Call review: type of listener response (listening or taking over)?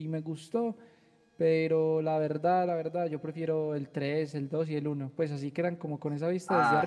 taking over